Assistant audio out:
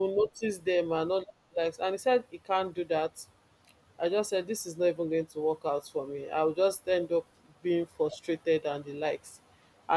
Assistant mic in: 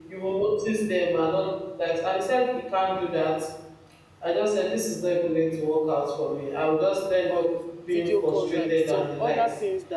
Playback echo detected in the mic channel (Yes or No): Yes